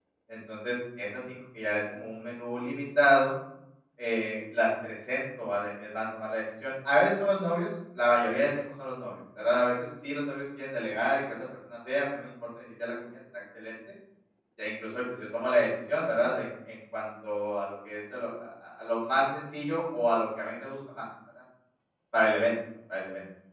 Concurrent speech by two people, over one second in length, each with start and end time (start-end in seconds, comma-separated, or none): none